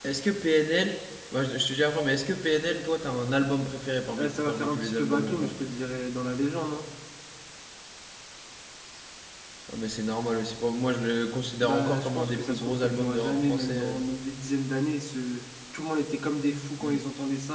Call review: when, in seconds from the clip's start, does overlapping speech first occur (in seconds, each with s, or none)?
4.2 s